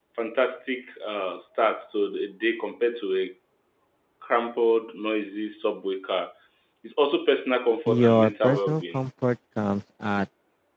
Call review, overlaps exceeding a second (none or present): present